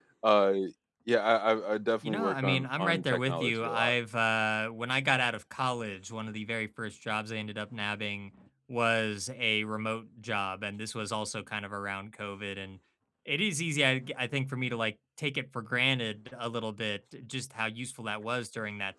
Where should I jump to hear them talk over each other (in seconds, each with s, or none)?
2.0 s